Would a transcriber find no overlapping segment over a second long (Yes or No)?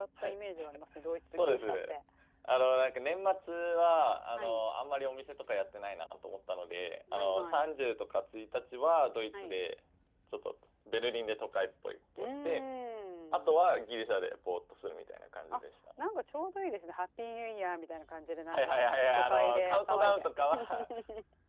No